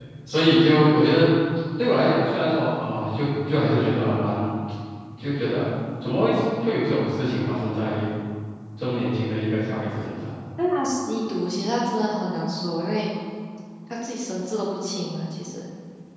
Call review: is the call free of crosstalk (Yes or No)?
Yes